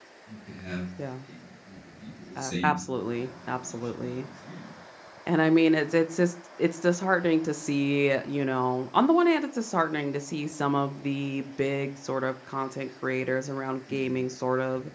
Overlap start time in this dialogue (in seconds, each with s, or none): 2.4 s